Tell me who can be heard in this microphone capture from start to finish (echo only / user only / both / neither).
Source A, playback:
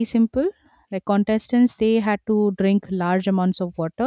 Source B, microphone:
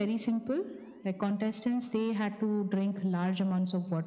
echo only